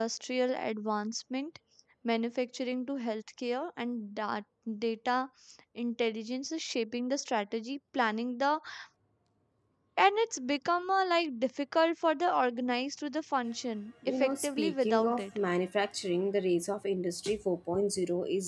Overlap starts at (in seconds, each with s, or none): 14.0 s